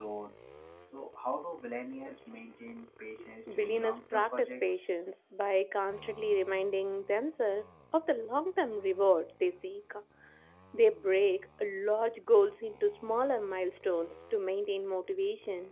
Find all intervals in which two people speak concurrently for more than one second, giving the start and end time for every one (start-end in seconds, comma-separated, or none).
3.5-4.9